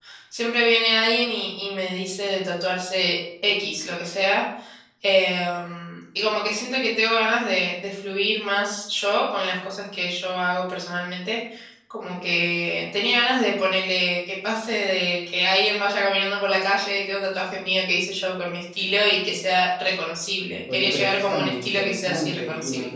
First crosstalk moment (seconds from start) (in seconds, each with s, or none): 20.7 s